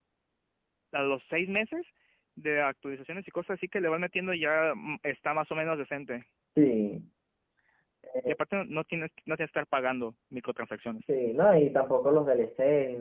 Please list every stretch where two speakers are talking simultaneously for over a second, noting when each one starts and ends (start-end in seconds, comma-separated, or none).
none